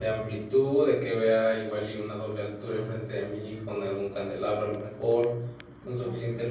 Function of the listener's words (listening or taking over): listening